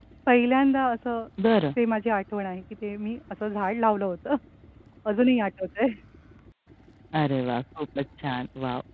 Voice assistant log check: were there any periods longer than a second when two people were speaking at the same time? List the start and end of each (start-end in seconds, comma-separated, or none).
none